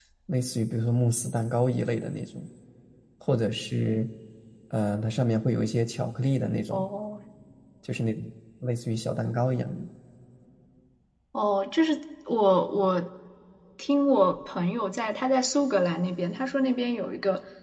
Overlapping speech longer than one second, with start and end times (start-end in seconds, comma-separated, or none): none